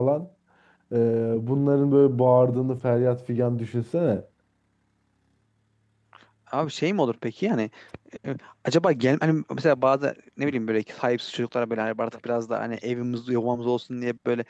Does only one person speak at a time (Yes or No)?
Yes